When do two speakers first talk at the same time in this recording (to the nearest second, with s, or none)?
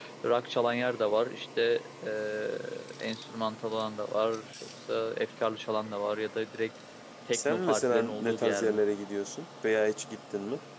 7 s